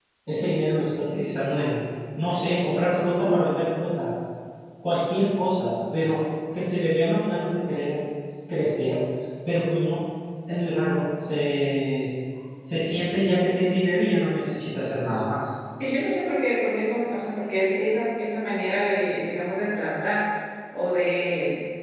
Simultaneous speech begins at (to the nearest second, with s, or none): none